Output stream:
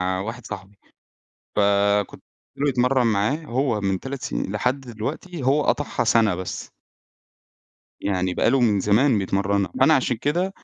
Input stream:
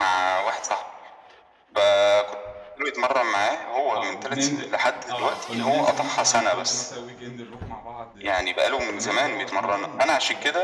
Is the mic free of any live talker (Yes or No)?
No